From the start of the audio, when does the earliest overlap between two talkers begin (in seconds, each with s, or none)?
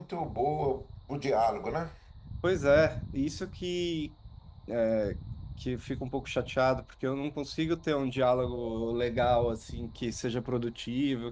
none